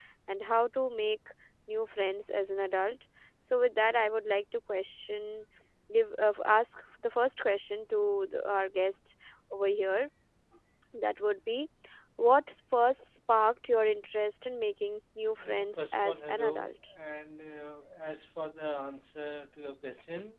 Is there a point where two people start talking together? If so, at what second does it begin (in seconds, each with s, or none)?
15.4 s